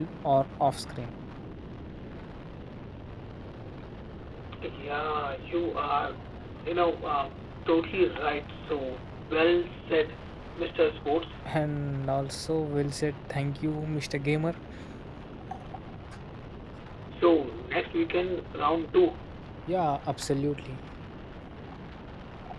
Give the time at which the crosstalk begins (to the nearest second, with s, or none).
none